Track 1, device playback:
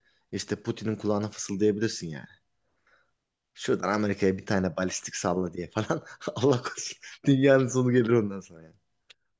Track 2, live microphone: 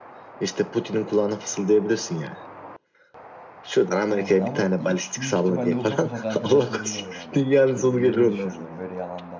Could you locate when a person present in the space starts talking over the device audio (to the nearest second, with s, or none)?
4 s